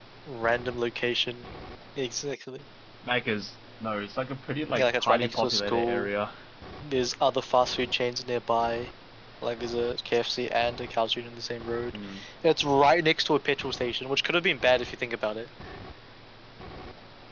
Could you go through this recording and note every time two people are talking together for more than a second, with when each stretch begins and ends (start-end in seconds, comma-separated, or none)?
4.8-6.1